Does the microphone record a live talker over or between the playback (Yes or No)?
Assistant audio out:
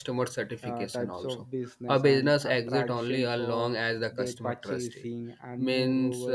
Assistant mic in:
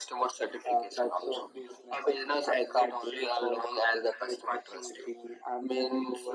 No